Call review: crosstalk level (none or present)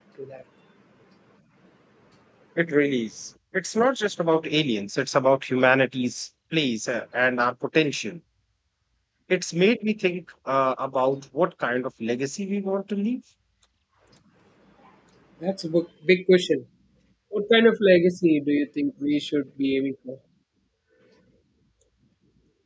none